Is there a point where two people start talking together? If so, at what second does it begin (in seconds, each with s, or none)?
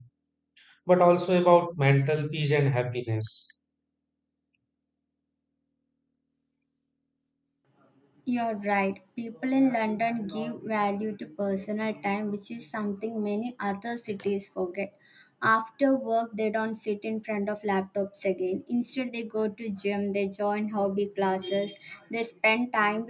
none